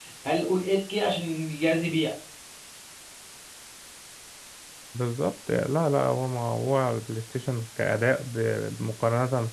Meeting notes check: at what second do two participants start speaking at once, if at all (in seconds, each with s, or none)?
none